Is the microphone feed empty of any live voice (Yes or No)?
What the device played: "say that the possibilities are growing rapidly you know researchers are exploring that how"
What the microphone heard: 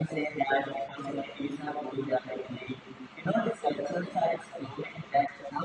Yes